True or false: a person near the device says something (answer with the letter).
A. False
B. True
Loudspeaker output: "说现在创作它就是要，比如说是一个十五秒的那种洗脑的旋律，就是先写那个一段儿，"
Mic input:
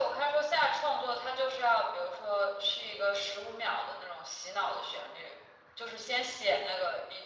A